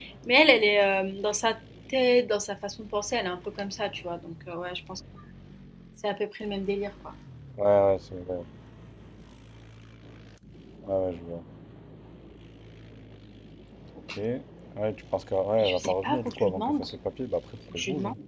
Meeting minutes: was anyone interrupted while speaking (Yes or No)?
Yes